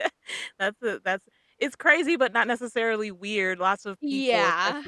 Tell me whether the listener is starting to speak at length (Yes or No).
No